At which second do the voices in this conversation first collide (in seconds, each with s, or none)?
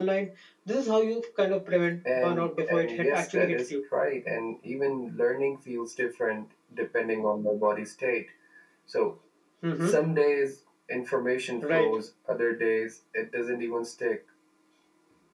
2.1 s